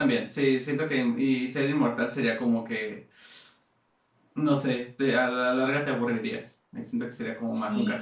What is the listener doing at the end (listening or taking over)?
taking over